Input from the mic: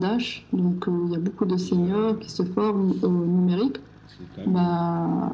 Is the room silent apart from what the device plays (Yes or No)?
No